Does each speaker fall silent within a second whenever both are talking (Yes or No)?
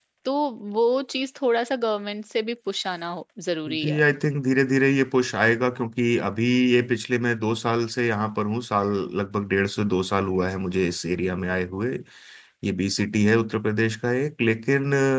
Yes